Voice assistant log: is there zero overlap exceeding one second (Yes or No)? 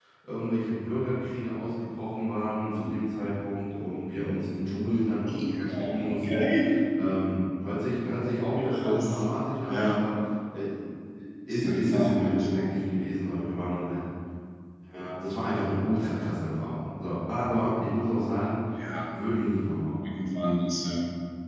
No